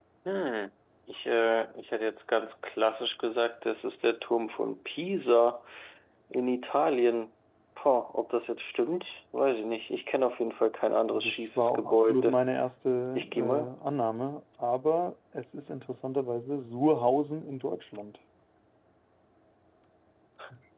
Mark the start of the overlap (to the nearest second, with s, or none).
11 s